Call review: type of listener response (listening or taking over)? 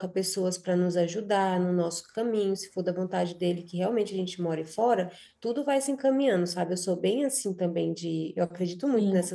listening